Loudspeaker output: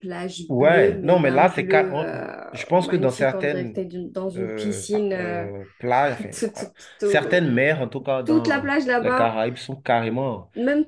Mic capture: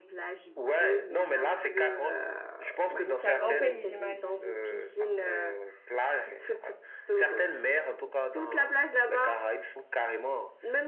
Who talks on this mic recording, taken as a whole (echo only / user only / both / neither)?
both